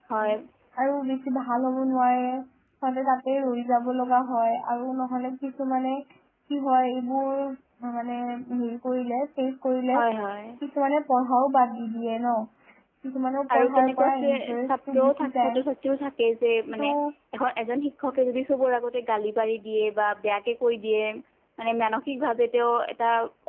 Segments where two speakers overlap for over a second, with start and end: 13.6-15.6

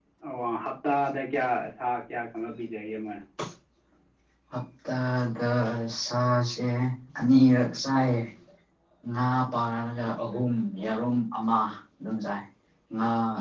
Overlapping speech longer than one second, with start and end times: none

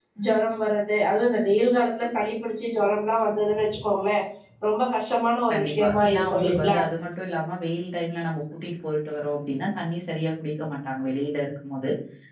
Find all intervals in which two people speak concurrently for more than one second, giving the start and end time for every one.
5.5-6.8

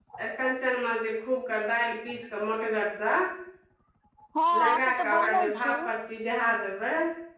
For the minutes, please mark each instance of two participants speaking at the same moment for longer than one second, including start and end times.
4.6-5.9

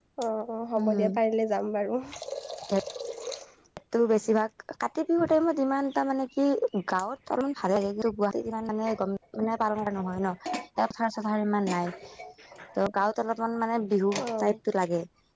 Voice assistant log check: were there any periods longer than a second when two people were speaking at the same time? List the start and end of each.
none

